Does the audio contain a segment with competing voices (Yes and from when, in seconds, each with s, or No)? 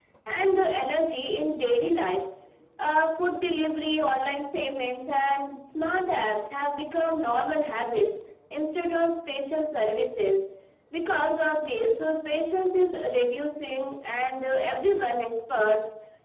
No